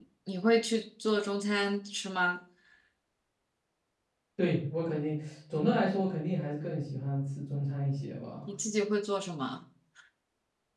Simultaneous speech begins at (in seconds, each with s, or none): none